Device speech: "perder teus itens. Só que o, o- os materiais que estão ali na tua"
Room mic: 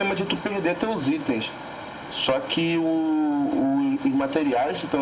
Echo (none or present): present